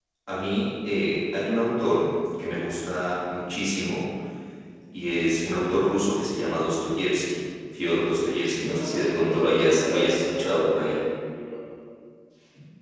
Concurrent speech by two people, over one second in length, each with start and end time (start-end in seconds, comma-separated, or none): 8.4-11.0